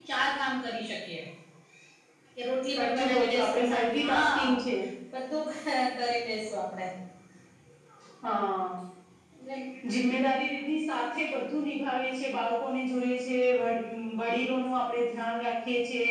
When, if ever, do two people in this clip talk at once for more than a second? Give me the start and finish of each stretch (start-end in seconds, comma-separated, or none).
2.8-4.6